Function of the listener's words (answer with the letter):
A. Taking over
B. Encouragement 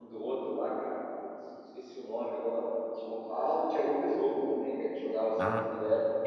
A